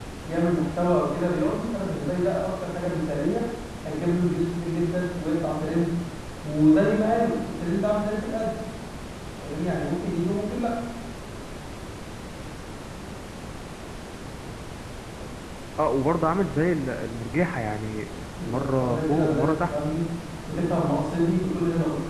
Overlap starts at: 18.4 s

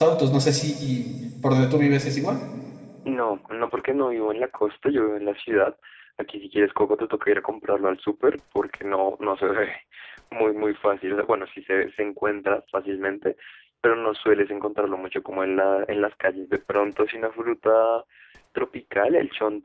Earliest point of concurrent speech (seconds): none

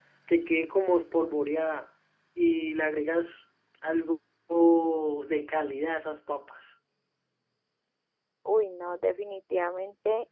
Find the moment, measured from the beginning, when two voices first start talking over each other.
none

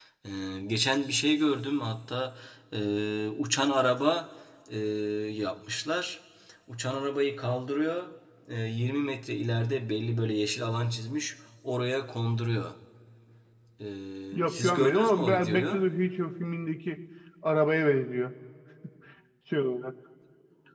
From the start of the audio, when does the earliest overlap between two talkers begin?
14.3 s

